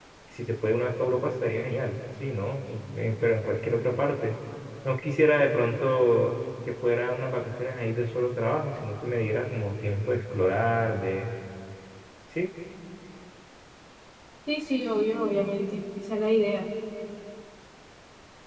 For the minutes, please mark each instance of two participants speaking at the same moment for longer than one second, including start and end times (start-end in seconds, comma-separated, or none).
none